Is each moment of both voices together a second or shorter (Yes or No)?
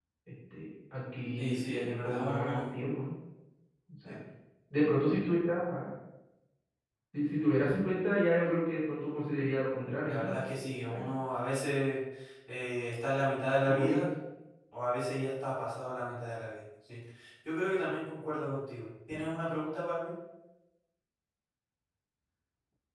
No